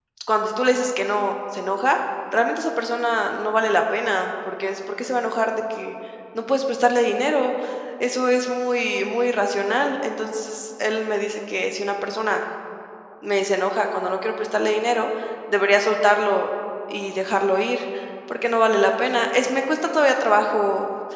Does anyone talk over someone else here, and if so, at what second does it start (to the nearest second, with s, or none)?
none